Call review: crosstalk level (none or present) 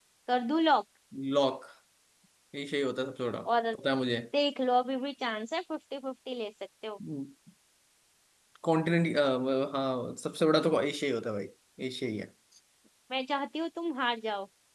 none